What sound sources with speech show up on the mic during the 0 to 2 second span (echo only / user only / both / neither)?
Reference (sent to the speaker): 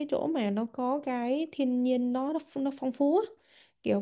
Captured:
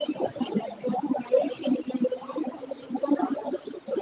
echo only